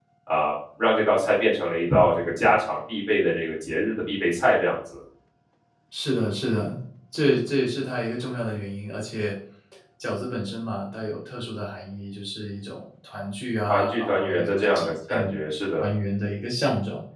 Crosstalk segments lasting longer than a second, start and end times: 13.7-15.4

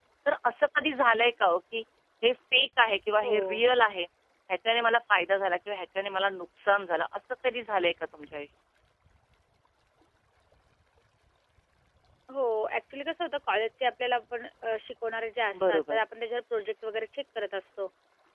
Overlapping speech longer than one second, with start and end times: none

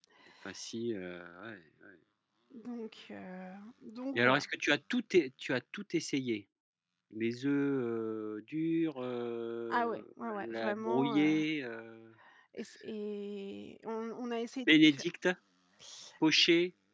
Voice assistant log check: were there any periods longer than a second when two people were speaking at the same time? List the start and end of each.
9.7-11.4

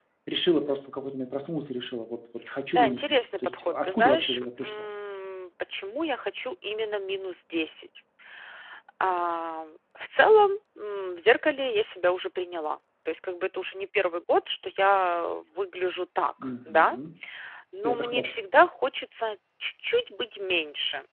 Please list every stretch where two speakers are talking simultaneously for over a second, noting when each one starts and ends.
2.7-4.8

